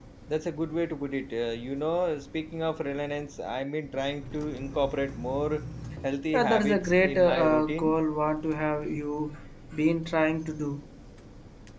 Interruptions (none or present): present